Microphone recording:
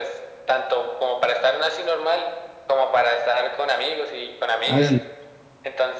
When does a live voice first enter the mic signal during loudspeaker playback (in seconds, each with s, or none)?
4.7 s